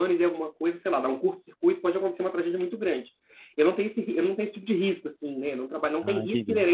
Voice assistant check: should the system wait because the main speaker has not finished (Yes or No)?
Yes